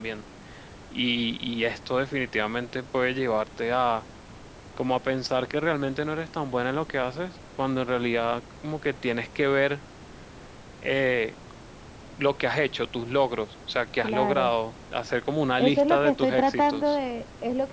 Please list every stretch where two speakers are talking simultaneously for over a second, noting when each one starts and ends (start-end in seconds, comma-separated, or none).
15.6-17.0